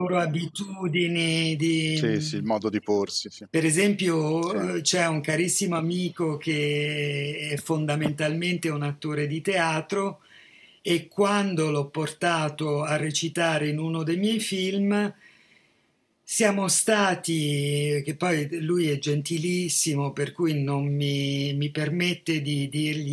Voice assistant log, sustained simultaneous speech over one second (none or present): none